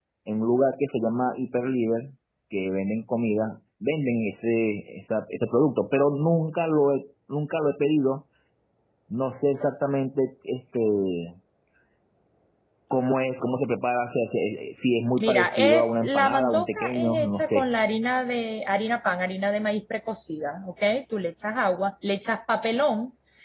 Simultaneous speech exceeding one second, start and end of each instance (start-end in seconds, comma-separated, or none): 15.2-17.7